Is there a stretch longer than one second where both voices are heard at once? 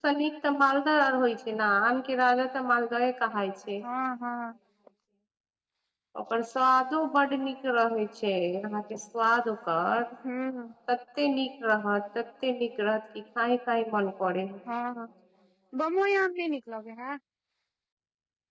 No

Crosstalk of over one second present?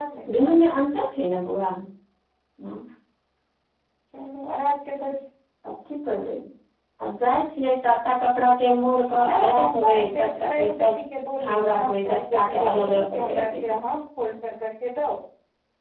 Yes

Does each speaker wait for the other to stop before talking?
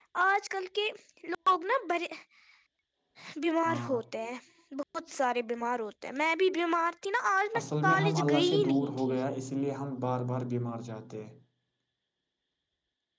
No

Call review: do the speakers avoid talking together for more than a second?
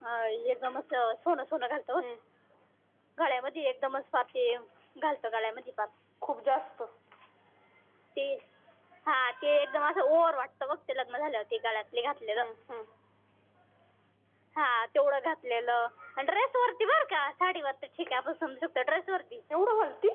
Yes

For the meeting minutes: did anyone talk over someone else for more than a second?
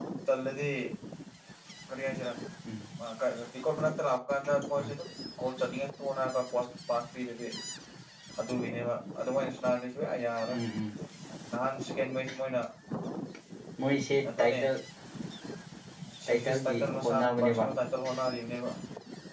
Yes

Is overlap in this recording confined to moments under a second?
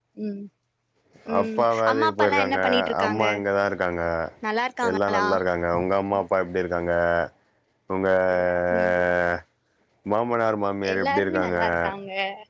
No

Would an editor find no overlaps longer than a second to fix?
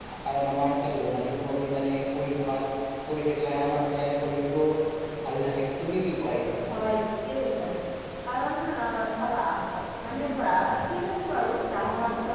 Yes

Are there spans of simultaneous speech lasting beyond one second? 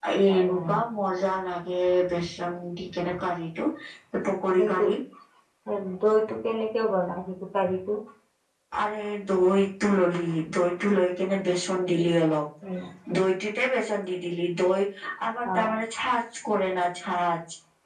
No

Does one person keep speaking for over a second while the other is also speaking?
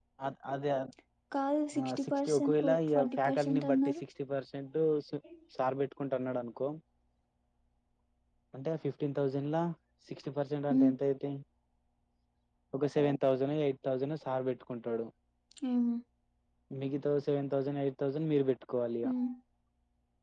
Yes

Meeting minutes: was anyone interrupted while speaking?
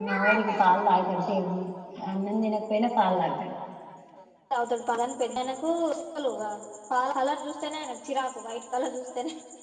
No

